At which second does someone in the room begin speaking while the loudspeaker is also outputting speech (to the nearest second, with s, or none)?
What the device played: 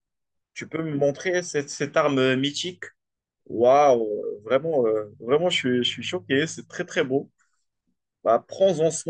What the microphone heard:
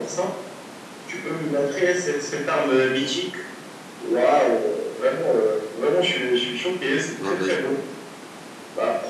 7 s